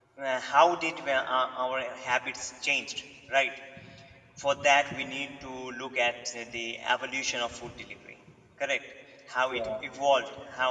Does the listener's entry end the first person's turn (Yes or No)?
No